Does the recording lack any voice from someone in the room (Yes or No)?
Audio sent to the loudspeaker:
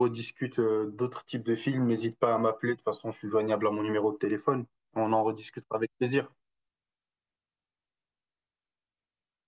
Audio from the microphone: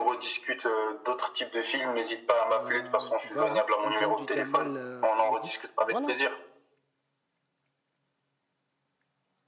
No